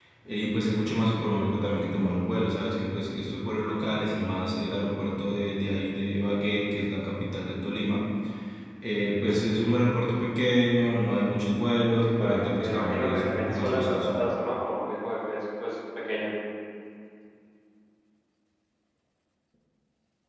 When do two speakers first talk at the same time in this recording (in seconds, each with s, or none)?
12.2 s